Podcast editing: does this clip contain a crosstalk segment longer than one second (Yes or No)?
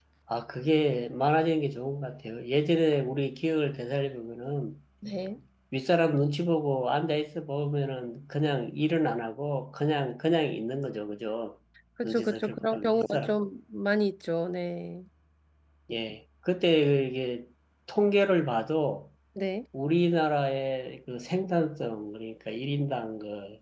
Yes